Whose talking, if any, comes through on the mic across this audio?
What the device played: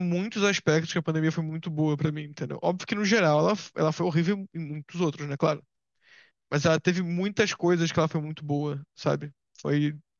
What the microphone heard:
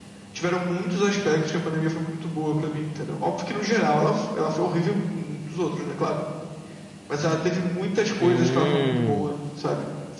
both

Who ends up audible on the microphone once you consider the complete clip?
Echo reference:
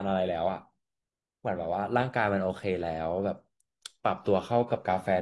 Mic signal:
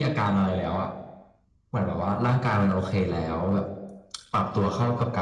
echo only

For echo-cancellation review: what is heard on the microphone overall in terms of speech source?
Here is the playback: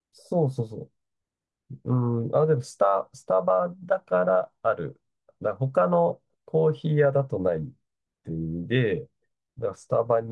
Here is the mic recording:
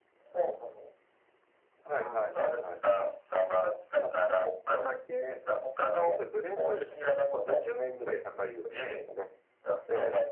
both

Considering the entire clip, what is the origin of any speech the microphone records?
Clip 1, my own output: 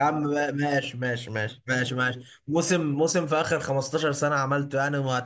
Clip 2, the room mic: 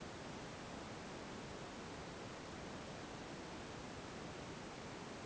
neither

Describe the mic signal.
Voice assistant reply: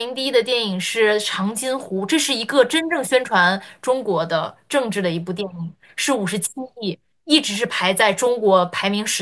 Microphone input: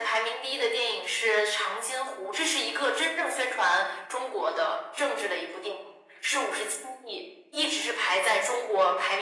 echo only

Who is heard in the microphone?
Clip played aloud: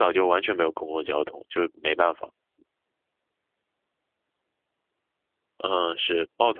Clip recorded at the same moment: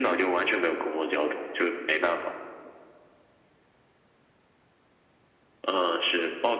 echo only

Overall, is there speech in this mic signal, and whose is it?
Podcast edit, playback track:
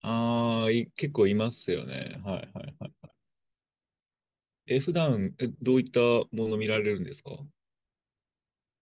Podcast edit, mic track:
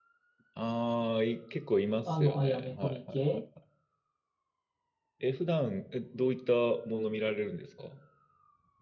both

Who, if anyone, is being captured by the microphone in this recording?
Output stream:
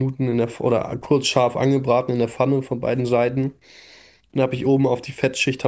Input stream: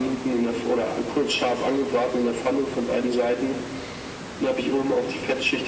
echo only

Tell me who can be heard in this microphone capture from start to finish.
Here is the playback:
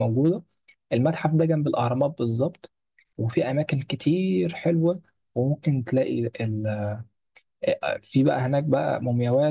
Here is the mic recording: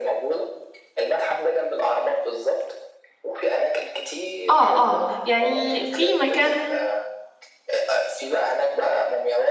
both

